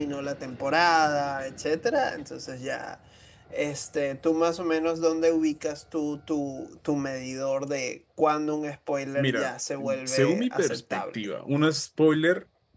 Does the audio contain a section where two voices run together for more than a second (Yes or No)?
Yes